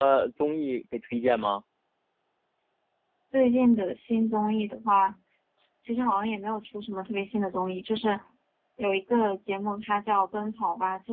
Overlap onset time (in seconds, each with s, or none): none